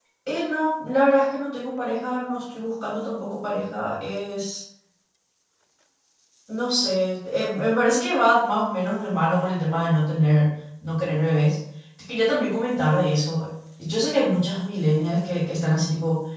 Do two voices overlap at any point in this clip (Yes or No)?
No